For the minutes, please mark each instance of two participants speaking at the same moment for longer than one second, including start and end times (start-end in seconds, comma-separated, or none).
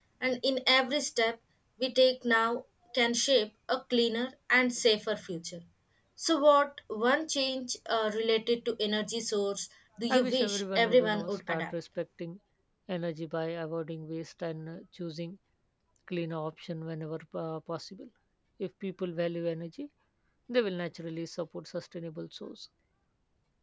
10.1-11.7